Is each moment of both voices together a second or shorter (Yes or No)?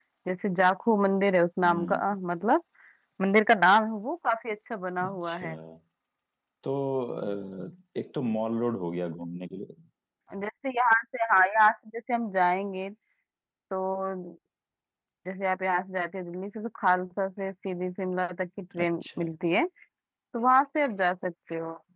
Yes